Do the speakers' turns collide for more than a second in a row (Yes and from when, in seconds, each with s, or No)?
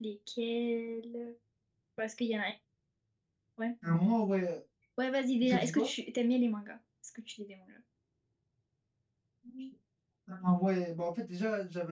No